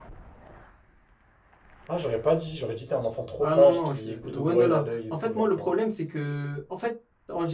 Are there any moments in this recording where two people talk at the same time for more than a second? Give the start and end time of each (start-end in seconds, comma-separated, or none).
3.4-5.7